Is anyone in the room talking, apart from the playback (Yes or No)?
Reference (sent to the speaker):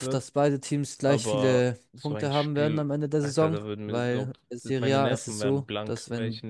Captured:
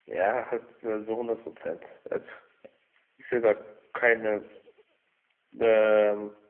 Yes